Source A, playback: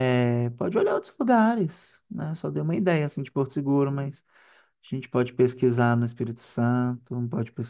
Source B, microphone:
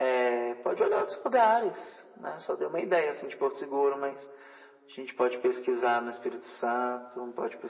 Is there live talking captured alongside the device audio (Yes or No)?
No